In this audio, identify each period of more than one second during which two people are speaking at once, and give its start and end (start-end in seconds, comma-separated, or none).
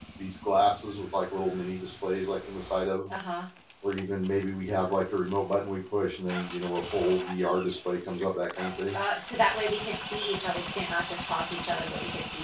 none